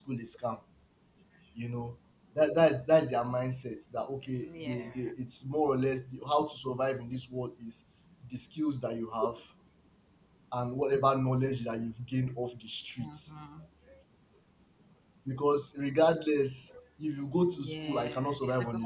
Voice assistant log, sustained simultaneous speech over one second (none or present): present